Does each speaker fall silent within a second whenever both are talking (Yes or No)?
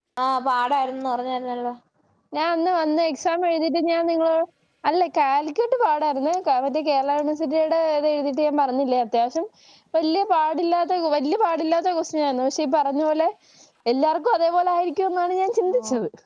Yes